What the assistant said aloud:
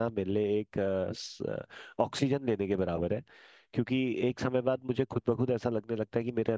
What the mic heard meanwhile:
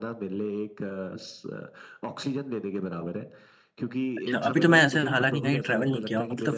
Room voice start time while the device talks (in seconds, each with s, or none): 4.2 s